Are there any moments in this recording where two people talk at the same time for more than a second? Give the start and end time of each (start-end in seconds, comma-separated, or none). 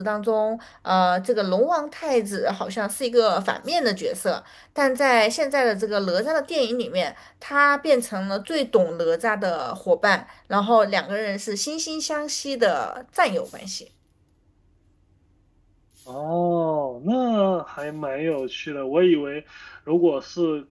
none